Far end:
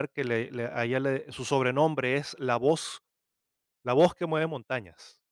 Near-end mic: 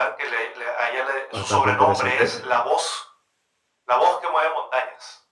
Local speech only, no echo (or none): bastante interesante.